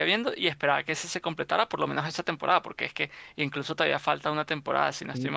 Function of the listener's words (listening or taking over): taking over